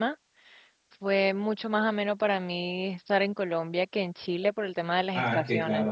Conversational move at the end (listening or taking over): taking over